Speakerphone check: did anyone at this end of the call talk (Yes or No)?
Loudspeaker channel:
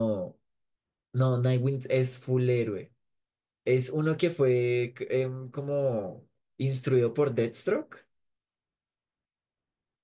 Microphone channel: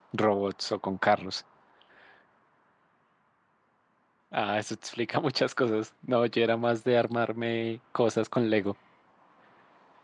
Yes